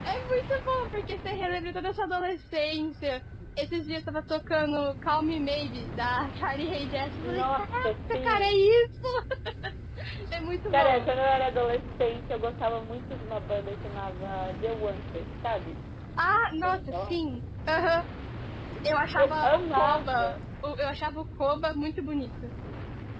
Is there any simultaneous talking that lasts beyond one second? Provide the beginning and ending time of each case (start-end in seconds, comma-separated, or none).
7.2-8.6, 19.2-20.4